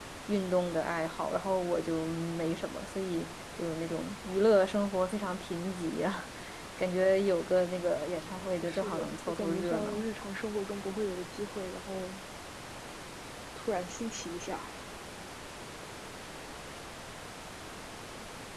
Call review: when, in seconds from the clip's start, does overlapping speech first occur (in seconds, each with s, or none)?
8.7 s